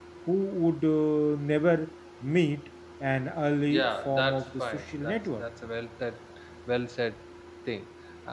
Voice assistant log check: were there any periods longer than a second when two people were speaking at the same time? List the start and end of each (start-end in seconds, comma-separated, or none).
3.8-5.4